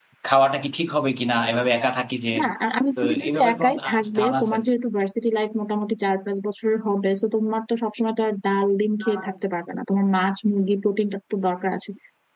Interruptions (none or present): present